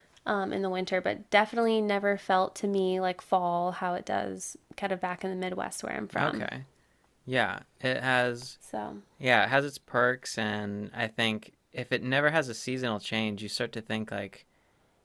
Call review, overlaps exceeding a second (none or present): none